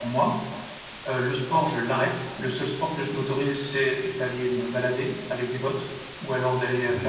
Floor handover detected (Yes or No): No